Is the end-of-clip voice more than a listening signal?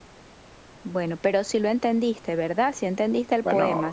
Yes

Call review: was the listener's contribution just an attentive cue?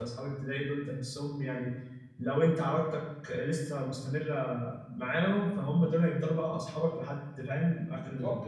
No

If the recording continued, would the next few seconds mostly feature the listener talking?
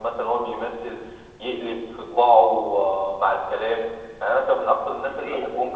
No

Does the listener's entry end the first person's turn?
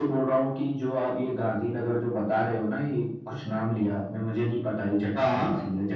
No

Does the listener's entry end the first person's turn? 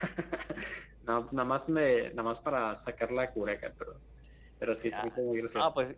Yes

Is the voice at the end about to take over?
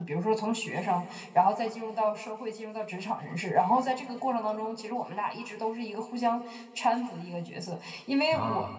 No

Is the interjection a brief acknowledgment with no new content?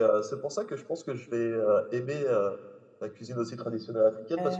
Yes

